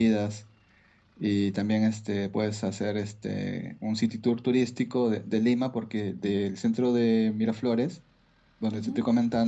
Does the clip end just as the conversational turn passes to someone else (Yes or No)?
No